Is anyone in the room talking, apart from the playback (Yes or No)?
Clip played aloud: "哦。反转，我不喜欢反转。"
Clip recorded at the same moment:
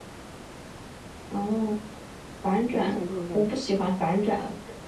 Yes